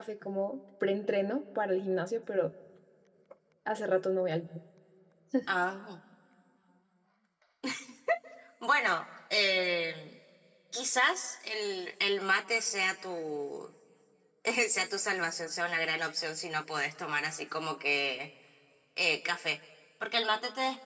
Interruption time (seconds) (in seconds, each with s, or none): none